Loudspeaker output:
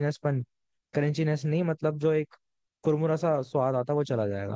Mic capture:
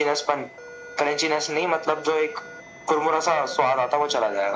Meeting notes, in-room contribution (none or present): none